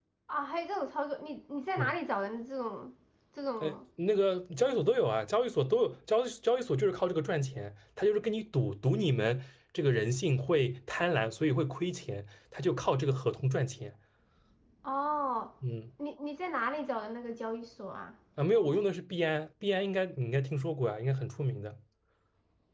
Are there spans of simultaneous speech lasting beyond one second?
No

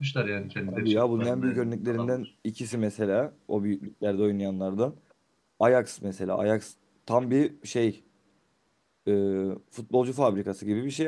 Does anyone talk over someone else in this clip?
Yes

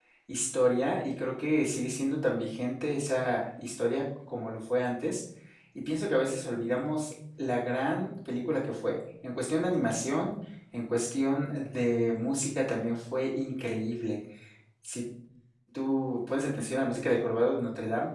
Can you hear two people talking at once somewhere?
No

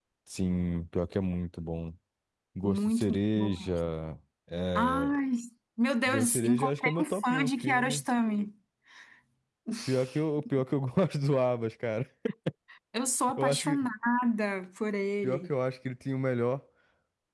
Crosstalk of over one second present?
Yes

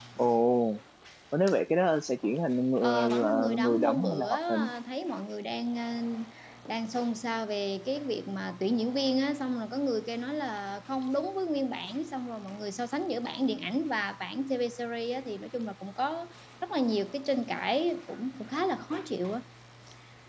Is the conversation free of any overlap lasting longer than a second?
No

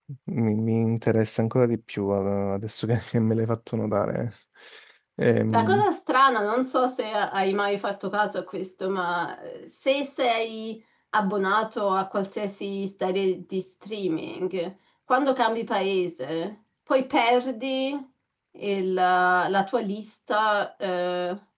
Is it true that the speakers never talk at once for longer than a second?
Yes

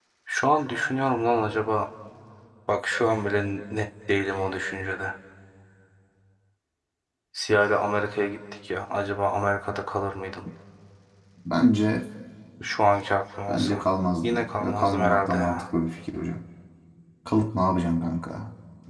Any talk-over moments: Yes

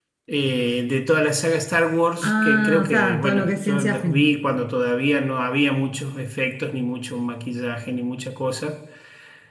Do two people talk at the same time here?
Yes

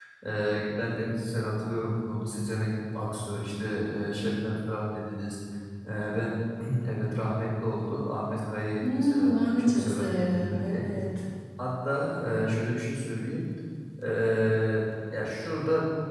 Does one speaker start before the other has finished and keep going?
Yes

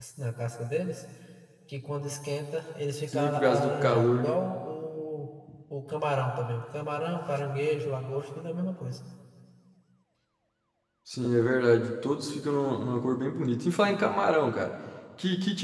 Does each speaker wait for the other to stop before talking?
No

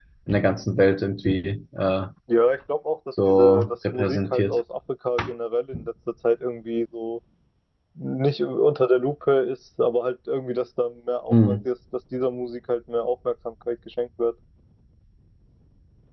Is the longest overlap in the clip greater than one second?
Yes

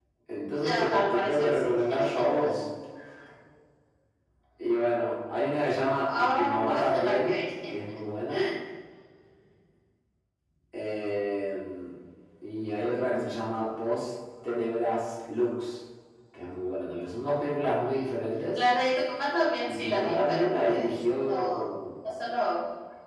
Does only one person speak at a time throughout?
No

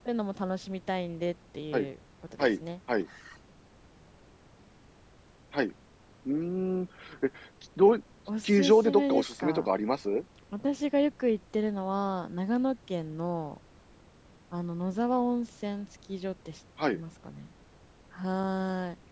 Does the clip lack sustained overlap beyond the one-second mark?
No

